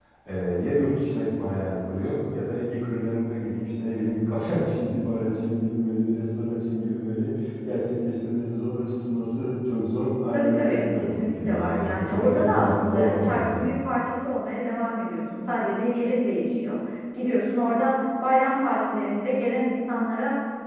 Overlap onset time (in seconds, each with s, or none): 10.3 s